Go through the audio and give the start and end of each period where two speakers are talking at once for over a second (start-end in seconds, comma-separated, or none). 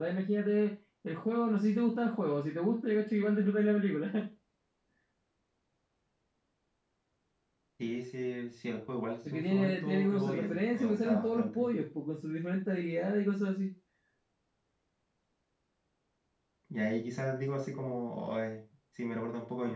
9.3-11.7